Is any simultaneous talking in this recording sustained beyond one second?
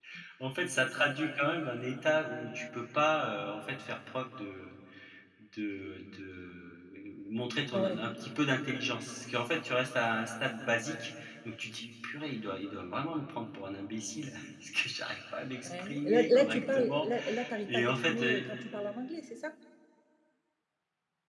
Yes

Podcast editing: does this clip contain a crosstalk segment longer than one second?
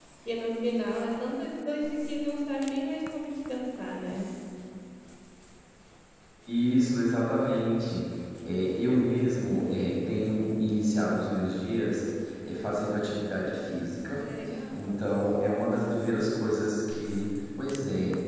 No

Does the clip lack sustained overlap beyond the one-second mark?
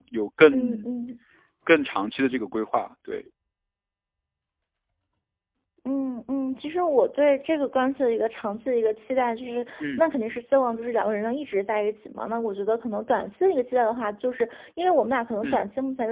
Yes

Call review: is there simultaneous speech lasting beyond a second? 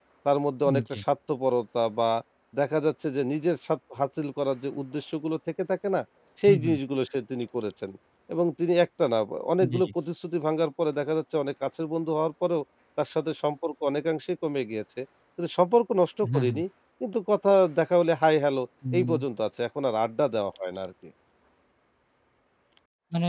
No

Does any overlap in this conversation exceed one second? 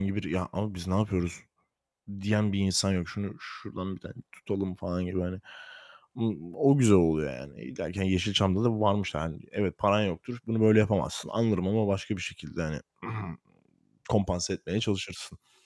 No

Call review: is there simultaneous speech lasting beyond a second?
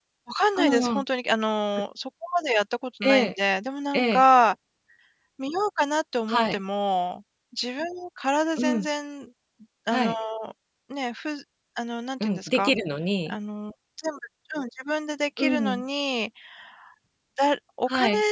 No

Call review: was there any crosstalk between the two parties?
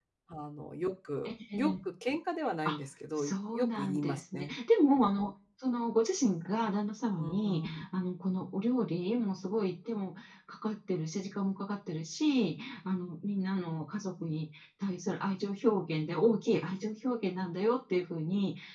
Yes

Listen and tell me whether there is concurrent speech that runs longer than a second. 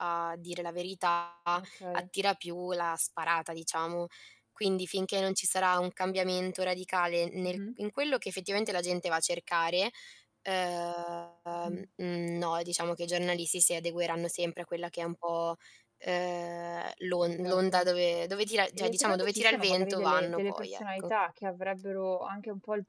Yes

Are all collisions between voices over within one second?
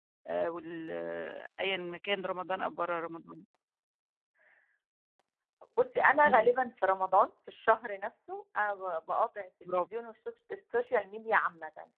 Yes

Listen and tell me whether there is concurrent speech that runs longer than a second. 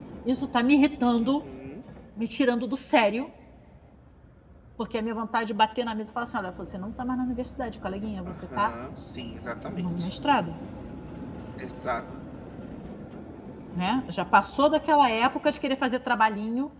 No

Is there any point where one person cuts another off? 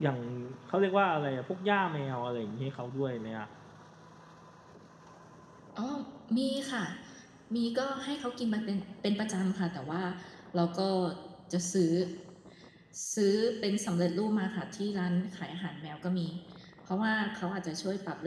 No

